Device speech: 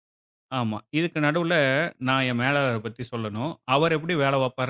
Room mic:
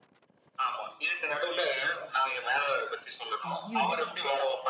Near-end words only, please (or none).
ஐயோ!